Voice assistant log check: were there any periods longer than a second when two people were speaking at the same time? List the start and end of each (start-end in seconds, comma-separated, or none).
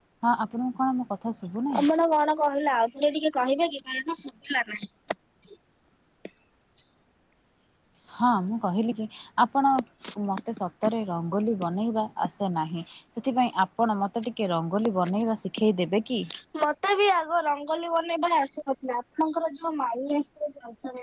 none